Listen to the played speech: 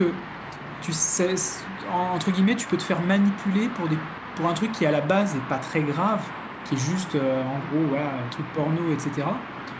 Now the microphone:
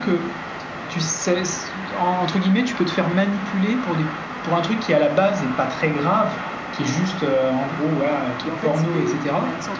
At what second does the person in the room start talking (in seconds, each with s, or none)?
8.4 s